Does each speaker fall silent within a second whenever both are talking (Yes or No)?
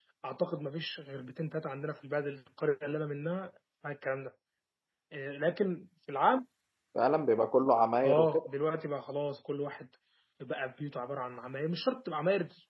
Yes